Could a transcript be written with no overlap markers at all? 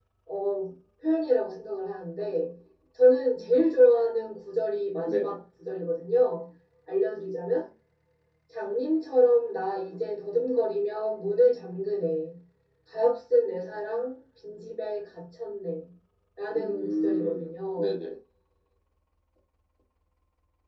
No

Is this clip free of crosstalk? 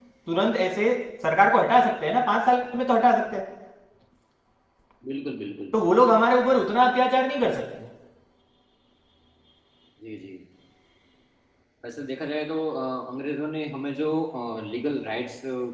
Yes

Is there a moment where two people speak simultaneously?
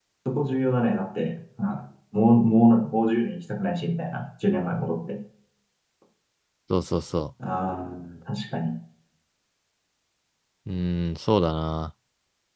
No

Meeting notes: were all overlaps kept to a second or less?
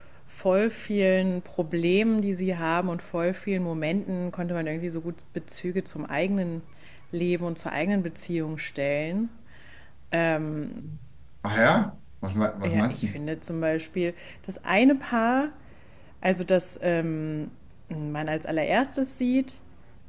Yes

